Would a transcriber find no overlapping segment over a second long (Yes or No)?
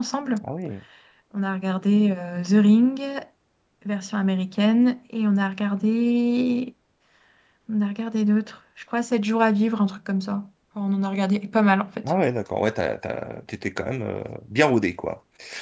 Yes